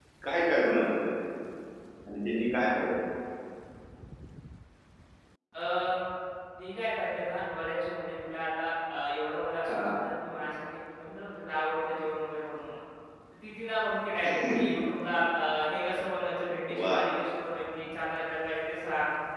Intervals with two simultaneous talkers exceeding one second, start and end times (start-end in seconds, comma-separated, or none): none